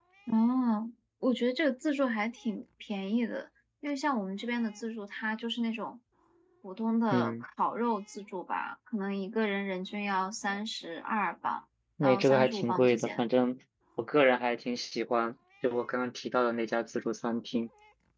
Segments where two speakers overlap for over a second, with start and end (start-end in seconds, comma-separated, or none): 12.0-13.2